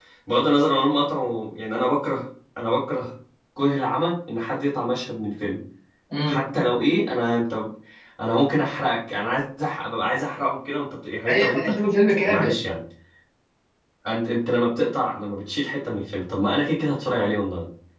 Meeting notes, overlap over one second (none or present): none